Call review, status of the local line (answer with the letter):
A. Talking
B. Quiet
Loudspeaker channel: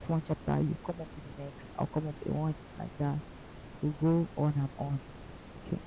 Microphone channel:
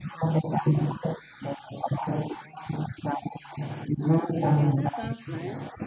A